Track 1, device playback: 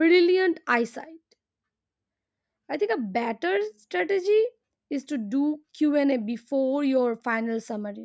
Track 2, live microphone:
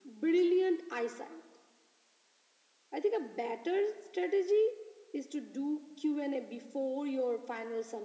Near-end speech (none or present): none